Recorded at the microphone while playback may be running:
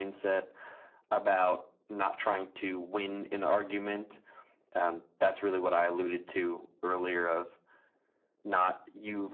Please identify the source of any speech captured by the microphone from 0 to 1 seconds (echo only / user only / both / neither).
echo only